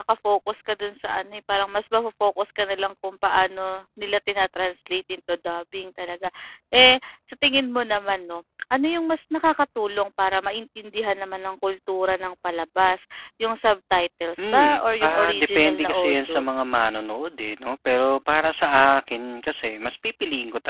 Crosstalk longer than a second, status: present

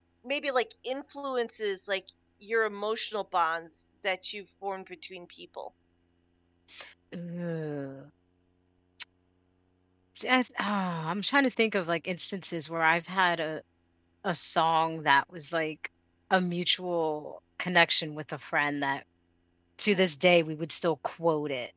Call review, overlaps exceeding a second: none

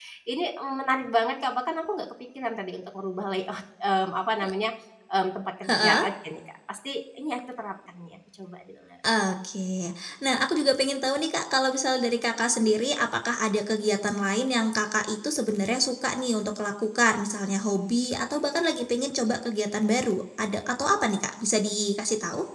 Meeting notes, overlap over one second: none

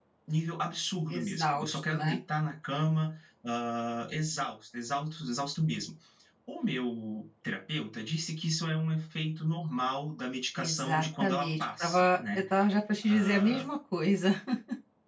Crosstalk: present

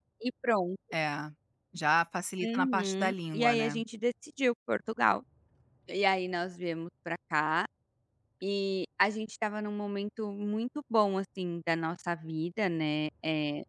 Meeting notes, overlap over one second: present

